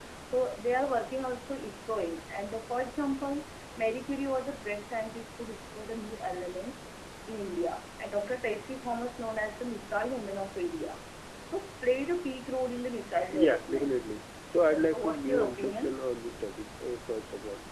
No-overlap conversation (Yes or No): No